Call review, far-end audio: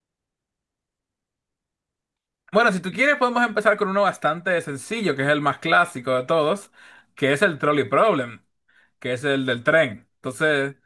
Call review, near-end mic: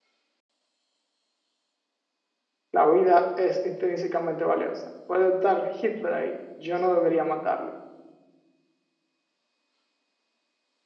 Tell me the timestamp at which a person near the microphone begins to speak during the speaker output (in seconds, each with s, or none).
2.7 s